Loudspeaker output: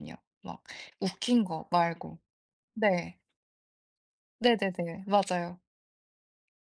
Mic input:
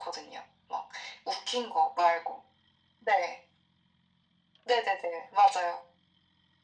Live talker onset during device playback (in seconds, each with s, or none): none